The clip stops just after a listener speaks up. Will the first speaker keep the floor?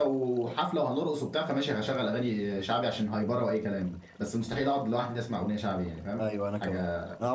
No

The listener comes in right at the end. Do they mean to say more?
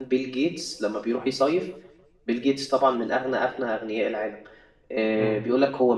No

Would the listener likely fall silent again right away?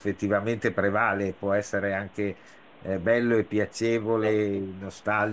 Yes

